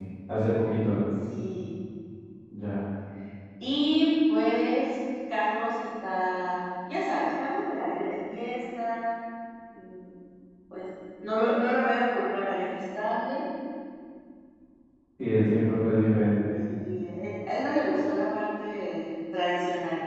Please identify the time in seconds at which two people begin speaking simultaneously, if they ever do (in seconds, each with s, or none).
none